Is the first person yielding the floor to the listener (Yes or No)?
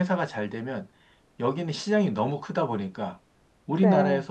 No